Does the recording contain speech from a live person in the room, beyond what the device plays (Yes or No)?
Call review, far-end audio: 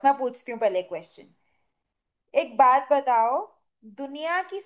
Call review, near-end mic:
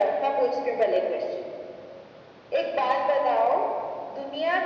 No